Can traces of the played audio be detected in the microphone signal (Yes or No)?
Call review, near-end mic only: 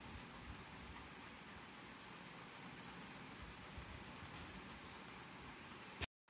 No